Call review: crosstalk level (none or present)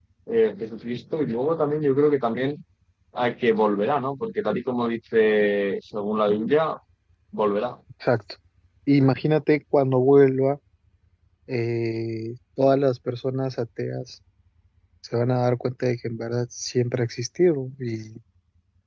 none